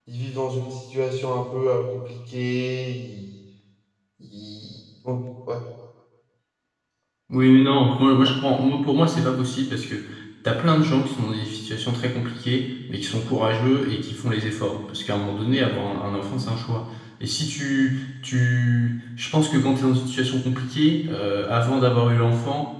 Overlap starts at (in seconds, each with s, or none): none